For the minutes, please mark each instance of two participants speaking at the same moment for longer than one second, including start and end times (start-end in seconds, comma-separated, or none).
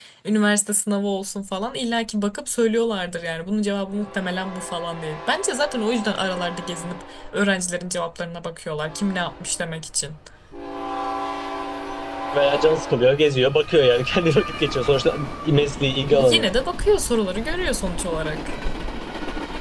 none